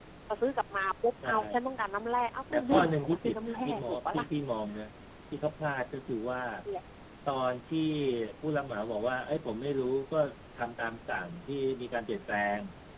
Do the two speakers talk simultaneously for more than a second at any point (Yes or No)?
Yes